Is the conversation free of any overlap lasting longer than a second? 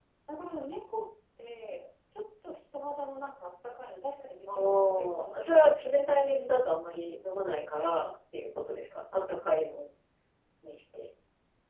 No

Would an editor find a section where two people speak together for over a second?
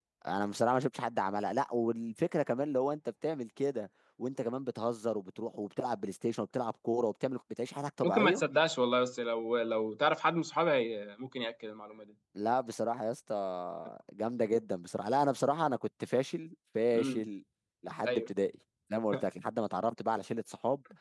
No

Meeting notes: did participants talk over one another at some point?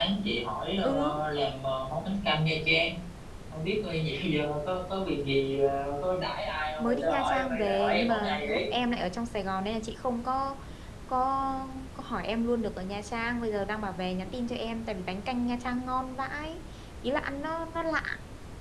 Yes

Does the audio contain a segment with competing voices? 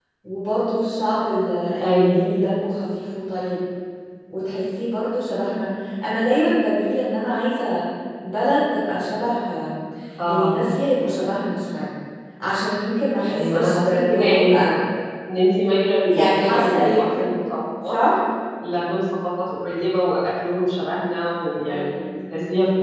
Yes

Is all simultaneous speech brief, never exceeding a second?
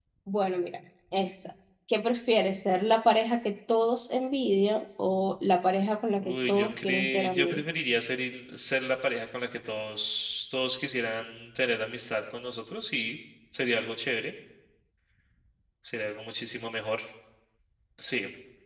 No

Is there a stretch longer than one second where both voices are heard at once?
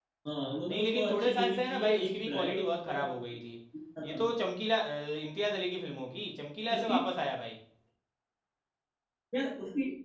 Yes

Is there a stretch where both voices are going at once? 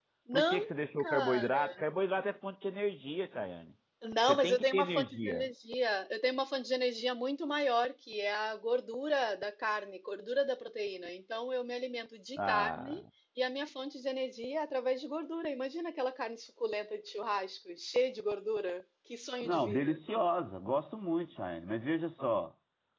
Yes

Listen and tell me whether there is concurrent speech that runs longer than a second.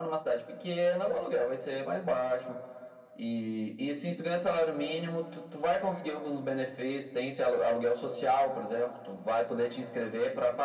No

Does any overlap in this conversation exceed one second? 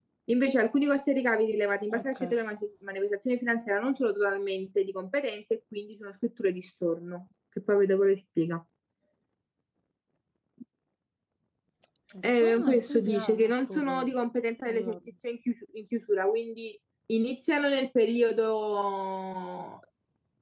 Yes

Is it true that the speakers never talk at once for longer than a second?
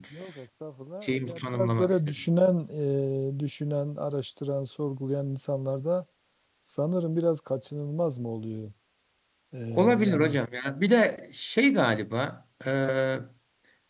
No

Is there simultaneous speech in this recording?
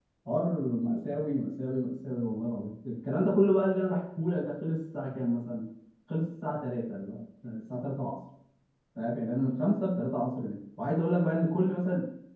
No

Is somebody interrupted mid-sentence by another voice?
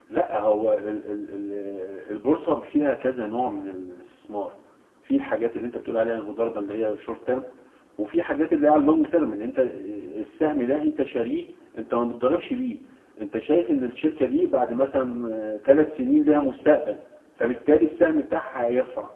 No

